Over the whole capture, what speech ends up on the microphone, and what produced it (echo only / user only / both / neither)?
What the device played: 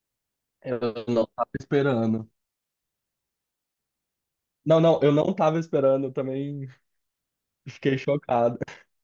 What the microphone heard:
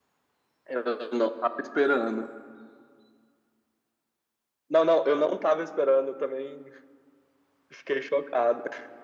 echo only